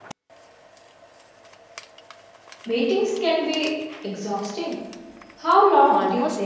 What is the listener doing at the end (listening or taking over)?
taking over